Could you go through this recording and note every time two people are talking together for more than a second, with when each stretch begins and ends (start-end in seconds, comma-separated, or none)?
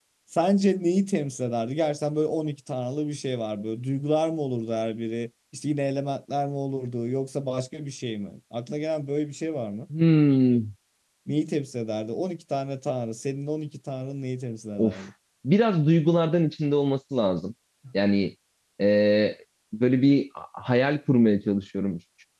none